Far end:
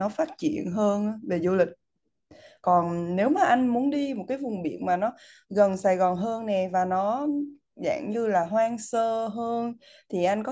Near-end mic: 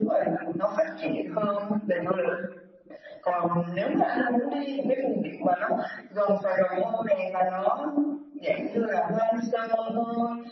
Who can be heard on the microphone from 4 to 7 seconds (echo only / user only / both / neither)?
echo only